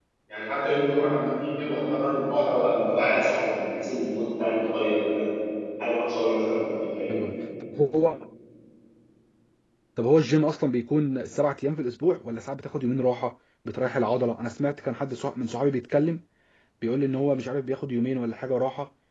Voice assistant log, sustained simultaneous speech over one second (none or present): none